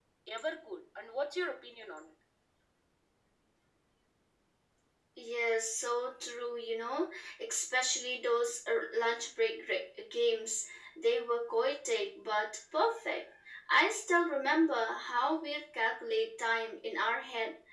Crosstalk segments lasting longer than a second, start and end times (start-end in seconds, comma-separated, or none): none